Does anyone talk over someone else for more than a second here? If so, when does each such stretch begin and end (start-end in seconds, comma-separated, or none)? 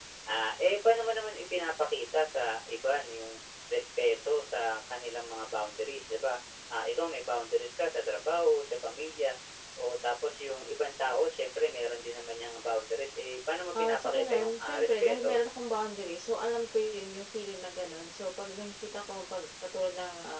13.8-15.4